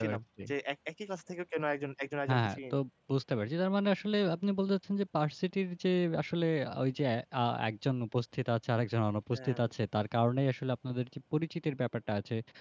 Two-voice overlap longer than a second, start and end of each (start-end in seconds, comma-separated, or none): none